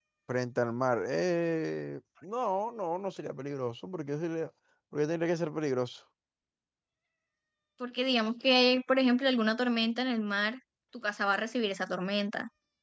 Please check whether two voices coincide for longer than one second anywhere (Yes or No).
No